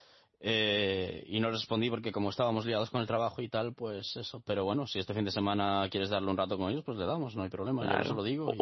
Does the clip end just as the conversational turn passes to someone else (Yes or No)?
Yes